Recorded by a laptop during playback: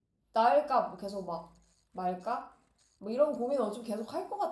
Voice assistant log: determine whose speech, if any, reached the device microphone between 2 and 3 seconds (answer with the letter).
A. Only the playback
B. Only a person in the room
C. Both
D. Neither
B